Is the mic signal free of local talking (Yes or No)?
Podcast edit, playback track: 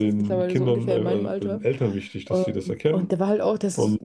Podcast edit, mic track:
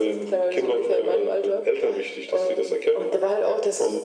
Yes